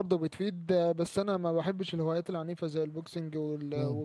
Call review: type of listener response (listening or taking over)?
listening